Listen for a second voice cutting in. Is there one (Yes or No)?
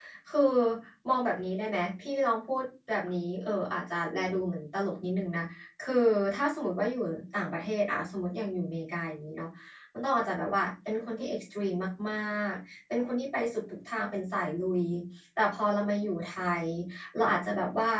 No